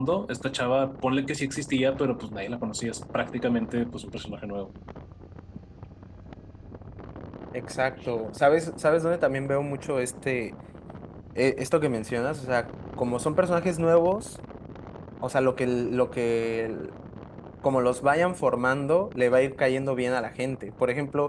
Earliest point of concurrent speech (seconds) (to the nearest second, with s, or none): none